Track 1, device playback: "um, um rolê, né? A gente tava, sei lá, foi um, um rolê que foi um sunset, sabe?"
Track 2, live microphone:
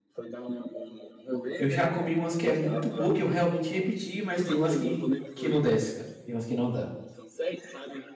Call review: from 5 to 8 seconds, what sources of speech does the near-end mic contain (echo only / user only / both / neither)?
both